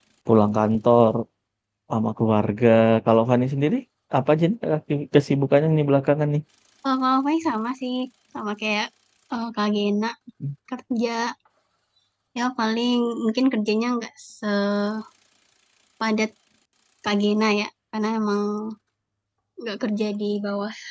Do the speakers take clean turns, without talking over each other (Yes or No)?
Yes